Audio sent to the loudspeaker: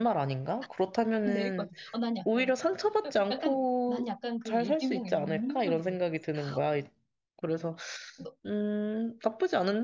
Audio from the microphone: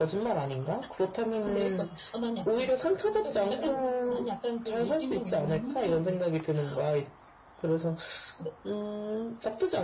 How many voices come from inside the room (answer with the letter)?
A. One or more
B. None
A